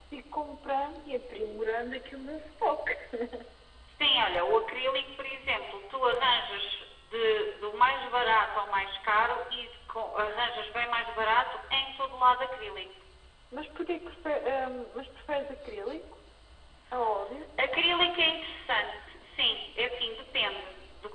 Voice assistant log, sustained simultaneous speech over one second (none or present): none